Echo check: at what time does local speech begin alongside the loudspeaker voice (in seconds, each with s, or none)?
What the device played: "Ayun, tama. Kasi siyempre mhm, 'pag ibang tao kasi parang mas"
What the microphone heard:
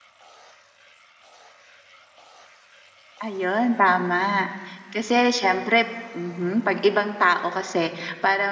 none